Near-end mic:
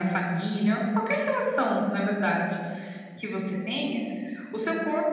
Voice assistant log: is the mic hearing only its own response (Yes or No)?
Yes